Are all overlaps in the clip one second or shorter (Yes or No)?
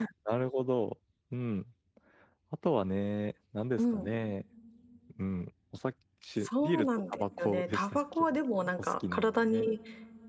No